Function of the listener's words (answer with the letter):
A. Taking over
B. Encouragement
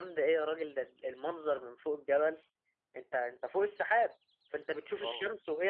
B